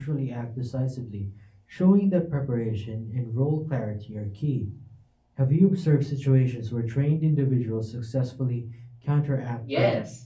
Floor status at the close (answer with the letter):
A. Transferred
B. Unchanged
A